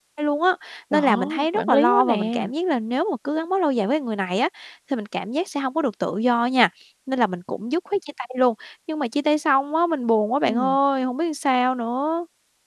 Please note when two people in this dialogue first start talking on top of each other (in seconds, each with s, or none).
0.9 s